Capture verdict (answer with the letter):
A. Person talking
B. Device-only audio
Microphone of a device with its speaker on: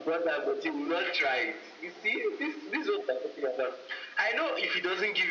B